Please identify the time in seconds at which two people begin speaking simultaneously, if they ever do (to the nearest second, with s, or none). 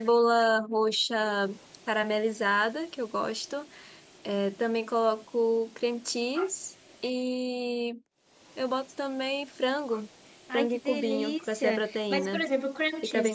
11 s